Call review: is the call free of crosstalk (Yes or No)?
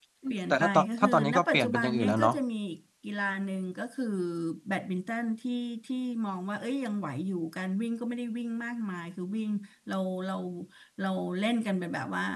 No